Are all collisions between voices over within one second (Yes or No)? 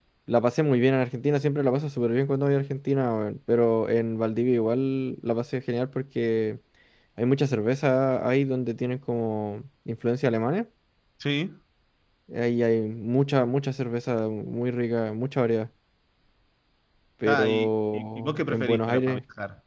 No